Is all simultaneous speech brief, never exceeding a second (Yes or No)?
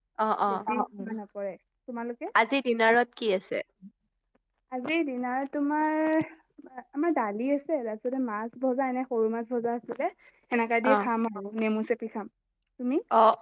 Yes